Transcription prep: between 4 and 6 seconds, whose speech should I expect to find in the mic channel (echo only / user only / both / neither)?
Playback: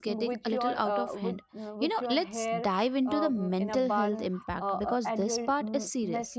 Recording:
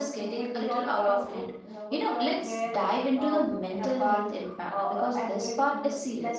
echo only